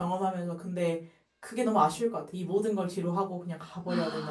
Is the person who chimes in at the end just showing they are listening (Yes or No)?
No